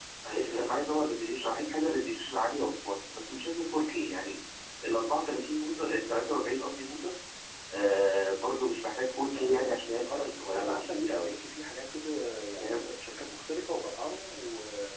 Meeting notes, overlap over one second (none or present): present